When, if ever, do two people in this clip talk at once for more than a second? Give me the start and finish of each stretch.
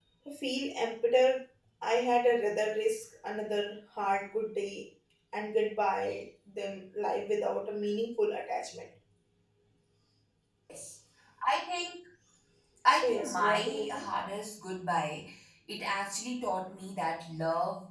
12.9-14.1

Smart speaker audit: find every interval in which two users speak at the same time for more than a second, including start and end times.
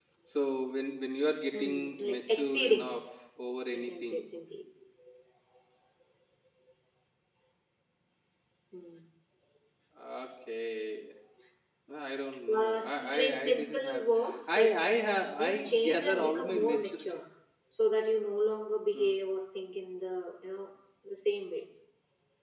1.5-2.9, 12.6-14.0, 15.4-17.2

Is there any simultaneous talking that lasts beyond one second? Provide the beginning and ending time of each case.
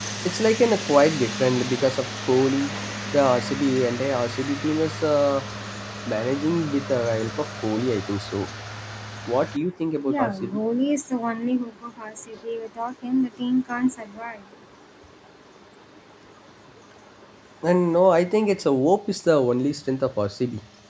none

